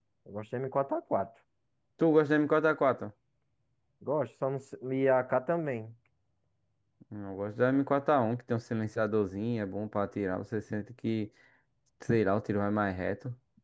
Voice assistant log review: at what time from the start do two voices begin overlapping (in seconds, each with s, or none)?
none